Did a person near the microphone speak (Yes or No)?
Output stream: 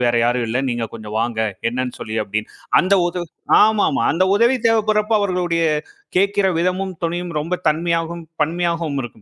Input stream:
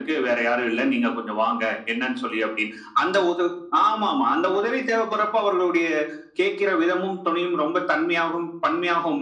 No